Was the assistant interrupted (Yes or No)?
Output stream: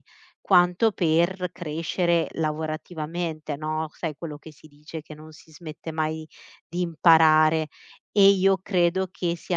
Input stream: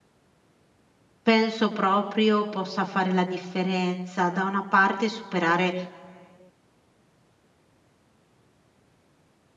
Yes